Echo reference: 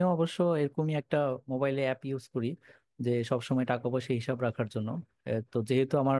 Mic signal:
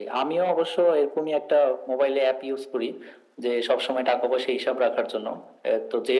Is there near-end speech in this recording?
No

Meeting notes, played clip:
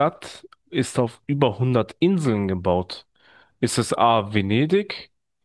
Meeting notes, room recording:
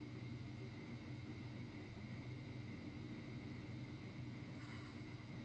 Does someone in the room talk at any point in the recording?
No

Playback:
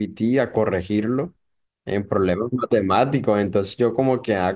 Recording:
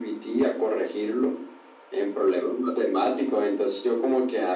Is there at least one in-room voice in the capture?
No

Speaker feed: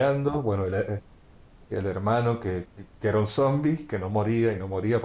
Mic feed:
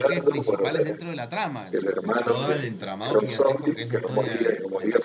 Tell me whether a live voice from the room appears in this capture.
Yes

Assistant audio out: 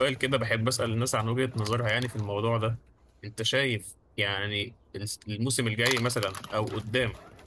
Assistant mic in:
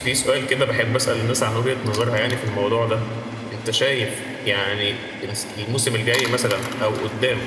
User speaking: No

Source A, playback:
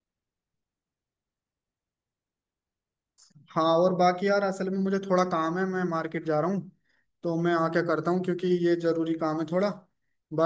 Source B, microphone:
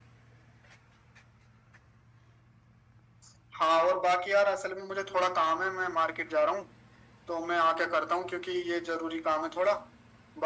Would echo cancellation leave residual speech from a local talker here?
No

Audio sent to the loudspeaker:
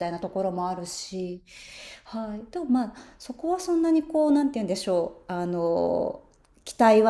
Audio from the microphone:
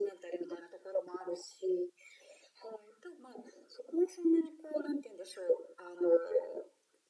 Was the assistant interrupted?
No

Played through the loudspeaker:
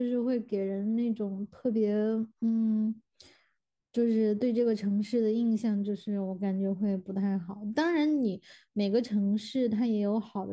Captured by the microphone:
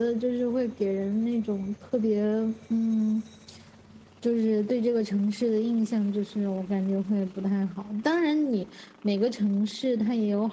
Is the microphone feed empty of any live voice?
Yes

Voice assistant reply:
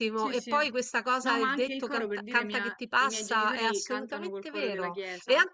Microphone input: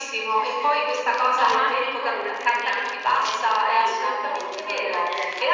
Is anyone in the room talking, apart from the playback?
No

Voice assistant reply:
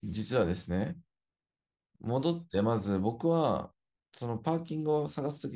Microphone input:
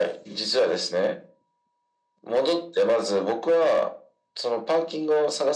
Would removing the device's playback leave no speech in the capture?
Yes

